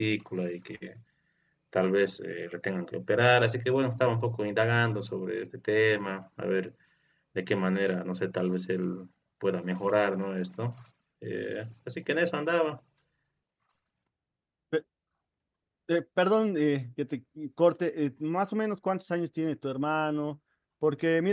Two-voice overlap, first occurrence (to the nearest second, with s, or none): none